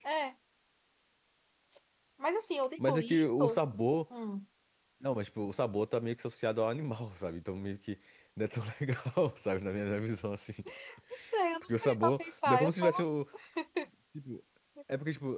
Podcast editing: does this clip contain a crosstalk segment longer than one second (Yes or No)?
Yes